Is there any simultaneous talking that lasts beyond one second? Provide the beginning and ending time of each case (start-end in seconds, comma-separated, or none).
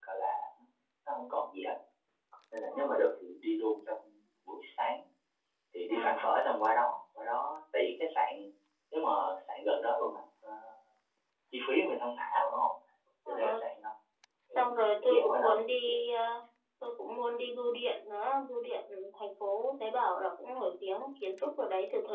14.6-15.9